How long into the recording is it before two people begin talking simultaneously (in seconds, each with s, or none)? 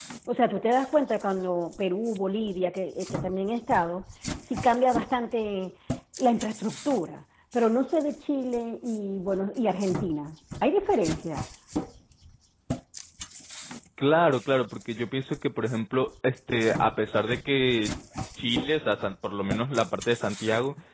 none